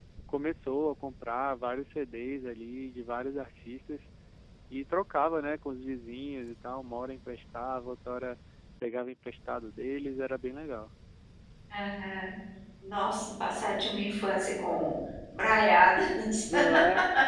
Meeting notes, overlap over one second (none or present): none